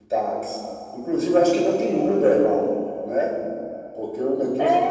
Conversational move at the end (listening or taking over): taking over